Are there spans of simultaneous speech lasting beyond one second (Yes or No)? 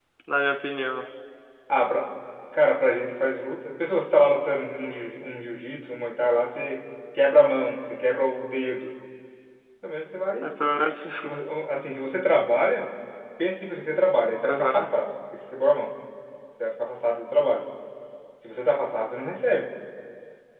No